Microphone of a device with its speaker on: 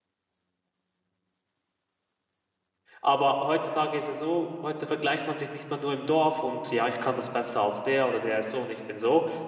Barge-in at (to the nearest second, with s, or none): 3 s